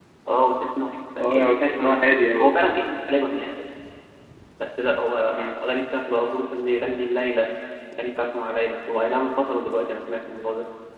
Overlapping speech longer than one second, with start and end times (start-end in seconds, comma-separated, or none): 1.3-2.6